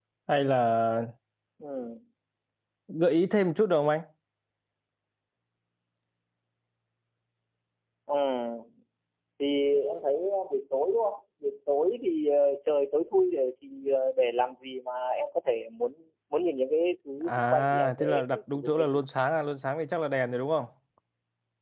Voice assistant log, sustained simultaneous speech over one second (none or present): present